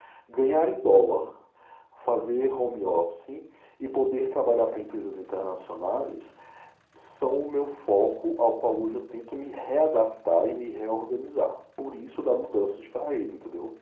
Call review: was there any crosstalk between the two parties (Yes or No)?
No